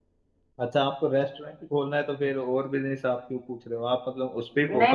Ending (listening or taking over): taking over